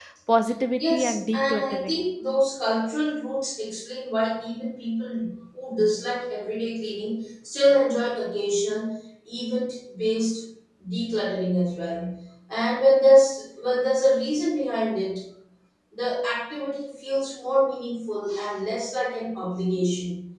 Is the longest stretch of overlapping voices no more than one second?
No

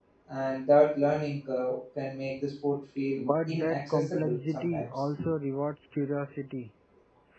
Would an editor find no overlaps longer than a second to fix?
No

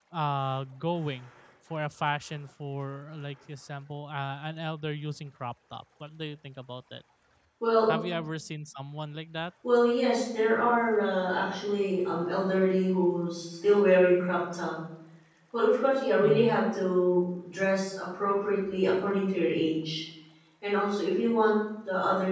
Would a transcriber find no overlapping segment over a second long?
Yes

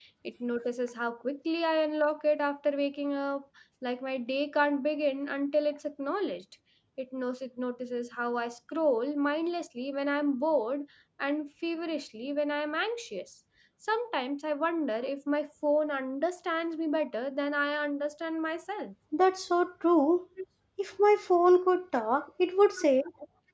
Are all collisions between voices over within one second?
Yes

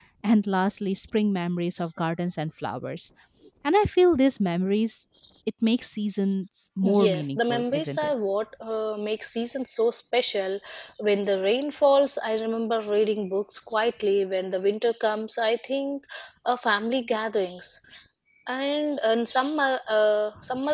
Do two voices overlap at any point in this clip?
Yes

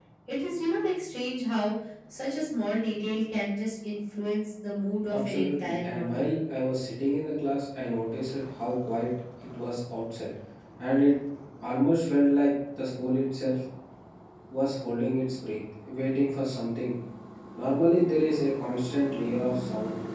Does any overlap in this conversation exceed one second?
Yes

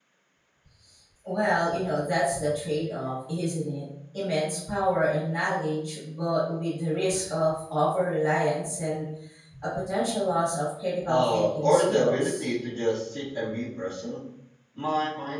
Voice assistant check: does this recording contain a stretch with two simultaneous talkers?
Yes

